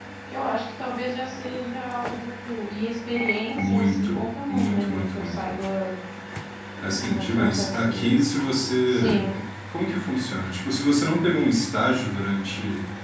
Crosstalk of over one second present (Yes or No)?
Yes